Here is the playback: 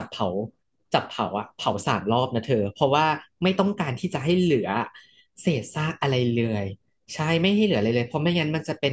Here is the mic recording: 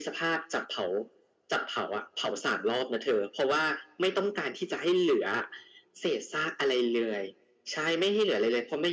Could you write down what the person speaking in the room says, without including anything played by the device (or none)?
none